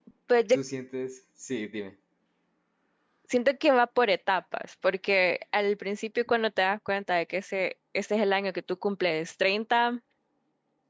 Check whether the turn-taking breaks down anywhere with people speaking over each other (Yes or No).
No